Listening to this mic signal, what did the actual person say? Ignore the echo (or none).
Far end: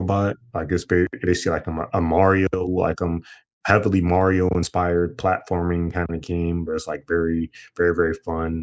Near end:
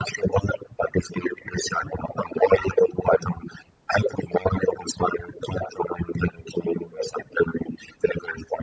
none